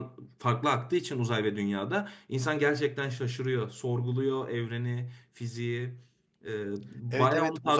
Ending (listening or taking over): taking over